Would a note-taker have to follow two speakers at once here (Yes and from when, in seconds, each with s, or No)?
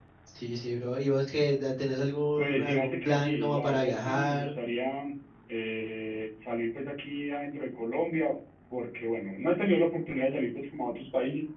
Yes, from 2.4 s